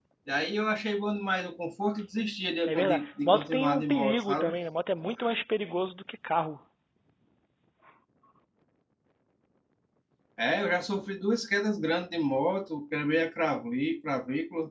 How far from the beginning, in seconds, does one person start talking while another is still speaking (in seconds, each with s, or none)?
2.7 s